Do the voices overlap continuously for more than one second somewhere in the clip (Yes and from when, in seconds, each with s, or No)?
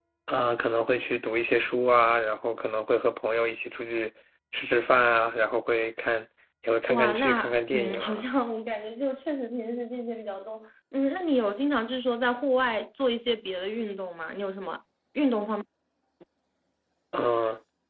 Yes, from 6.9 s